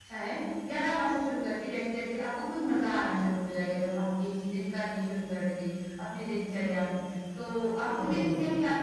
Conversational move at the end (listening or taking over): listening